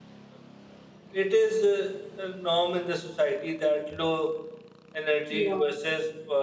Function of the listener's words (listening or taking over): listening